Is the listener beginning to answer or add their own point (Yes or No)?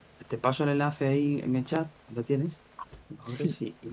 No